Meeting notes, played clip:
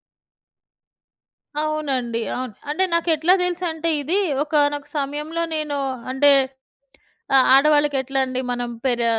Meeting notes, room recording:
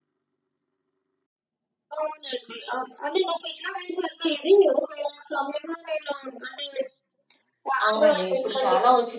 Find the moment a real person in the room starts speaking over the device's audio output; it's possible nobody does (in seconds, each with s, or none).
7.9 s